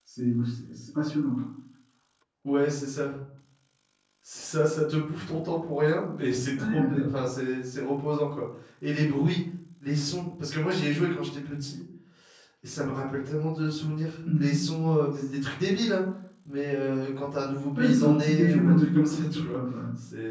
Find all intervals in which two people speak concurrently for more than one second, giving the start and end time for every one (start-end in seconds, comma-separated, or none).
17.8-19.6